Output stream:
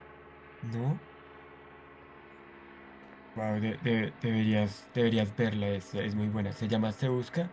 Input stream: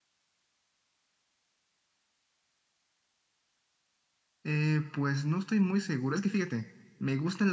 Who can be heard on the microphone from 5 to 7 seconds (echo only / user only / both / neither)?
user only